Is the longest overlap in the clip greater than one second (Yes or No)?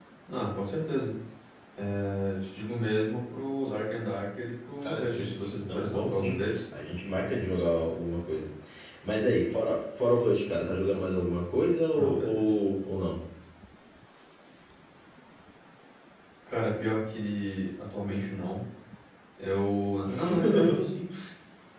Yes